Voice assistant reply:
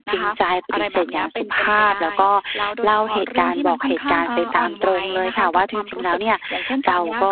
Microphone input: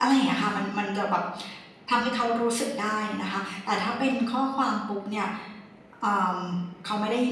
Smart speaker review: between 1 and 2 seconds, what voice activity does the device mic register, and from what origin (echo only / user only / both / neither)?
user only